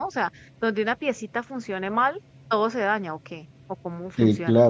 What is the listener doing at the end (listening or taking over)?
taking over